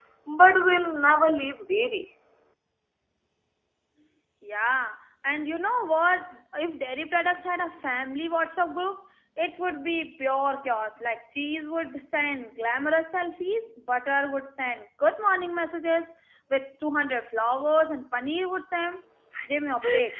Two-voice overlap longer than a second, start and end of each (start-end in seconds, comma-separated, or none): none